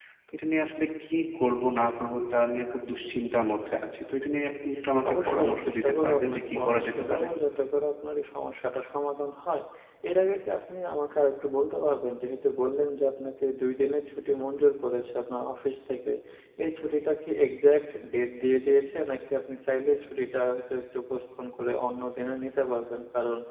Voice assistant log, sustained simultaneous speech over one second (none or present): present